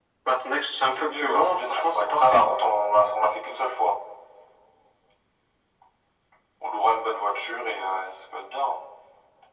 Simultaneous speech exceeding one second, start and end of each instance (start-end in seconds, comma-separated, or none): 0.9-2.5